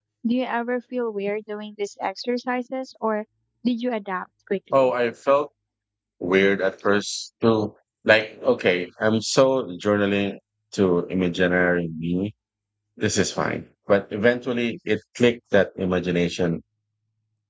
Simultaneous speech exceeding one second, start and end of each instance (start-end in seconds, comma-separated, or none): none